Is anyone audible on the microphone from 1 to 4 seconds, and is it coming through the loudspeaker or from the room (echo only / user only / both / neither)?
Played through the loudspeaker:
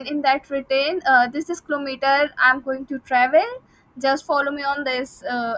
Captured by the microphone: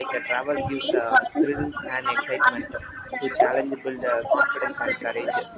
both